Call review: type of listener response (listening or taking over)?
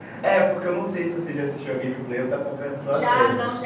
taking over